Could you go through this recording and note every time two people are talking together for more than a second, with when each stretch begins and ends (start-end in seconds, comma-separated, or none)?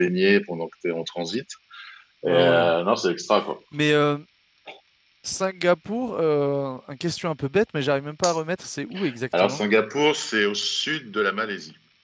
none